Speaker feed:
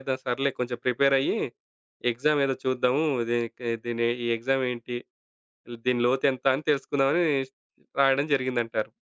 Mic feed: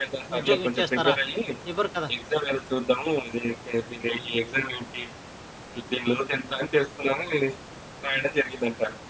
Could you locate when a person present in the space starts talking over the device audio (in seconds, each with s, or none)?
0.4 s